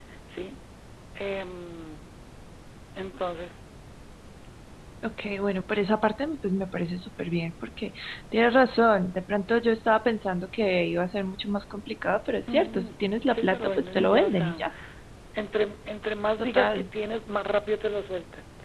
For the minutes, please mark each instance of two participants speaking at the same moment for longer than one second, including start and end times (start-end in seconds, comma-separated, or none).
13.3-14.6